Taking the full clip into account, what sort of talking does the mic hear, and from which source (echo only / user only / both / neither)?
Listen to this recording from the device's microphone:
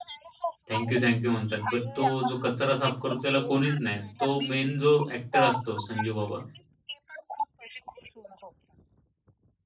both